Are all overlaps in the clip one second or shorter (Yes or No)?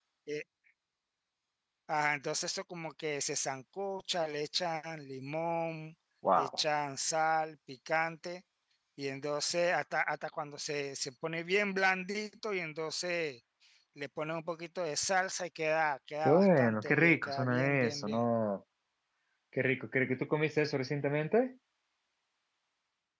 No